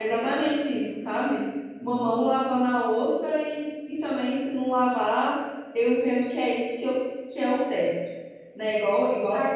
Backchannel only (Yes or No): No